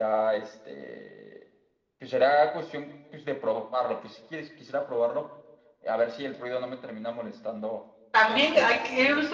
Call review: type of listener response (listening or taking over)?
taking over